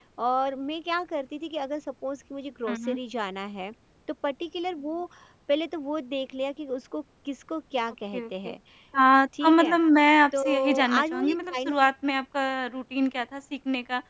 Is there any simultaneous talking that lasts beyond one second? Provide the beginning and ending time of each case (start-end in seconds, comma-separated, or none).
10.4-11.7